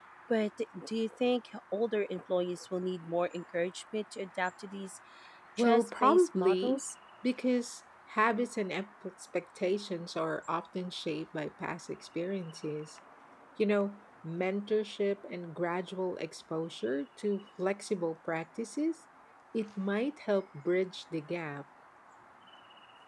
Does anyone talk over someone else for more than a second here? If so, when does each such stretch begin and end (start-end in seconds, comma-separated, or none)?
5.6-6.8